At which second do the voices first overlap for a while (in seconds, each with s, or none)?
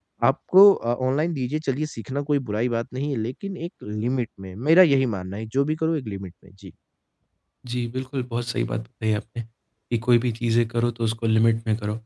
none